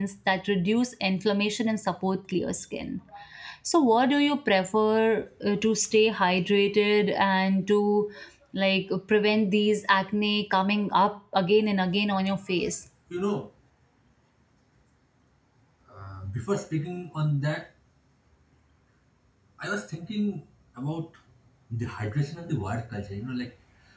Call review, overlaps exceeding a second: none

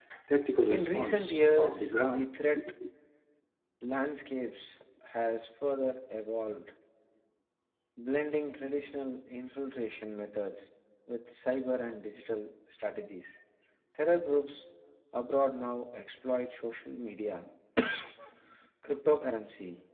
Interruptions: present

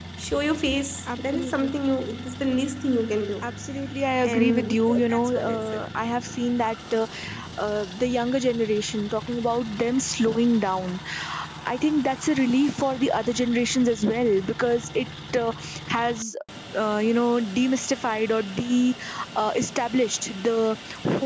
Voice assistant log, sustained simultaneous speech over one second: present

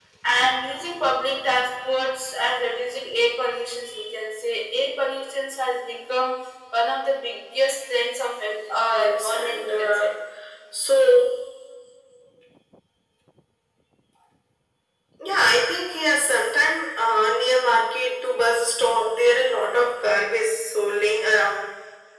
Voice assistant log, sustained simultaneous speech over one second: present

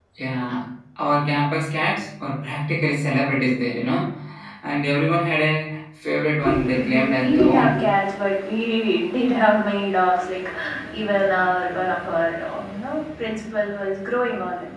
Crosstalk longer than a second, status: present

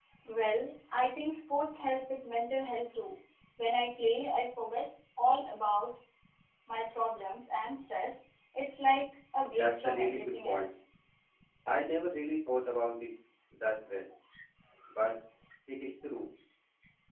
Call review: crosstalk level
present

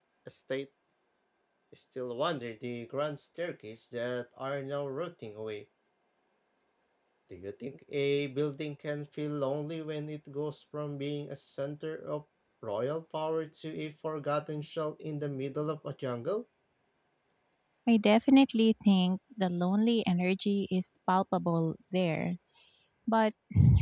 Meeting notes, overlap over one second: none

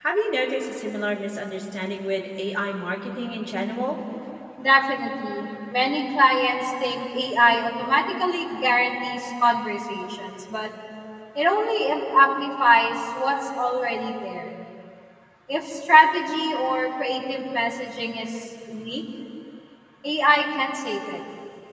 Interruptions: none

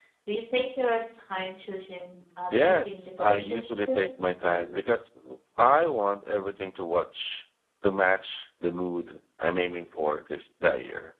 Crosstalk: present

